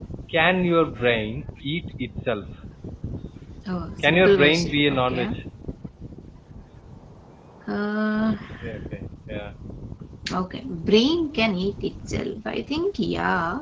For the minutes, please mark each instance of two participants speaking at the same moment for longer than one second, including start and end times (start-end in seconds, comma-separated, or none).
4.0-5.3